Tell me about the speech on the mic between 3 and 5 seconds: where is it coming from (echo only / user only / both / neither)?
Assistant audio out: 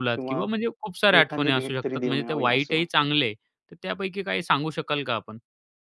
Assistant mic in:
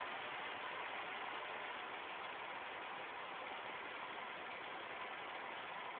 neither